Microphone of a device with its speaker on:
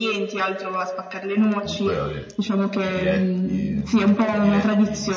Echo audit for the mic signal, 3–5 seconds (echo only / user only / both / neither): both